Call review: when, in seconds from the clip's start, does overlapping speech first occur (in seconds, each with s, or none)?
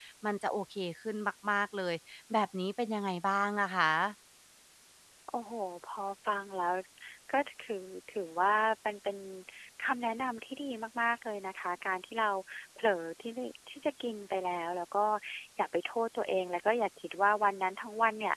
none